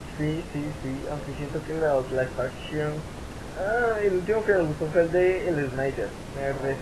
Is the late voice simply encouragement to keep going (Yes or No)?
No